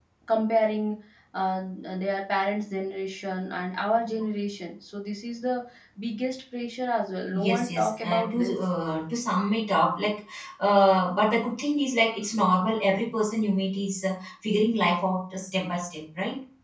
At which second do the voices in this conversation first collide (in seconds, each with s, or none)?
7.3 s